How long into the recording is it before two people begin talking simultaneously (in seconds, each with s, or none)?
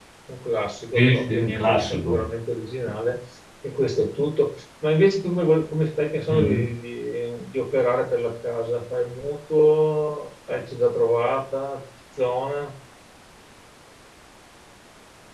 0.9 s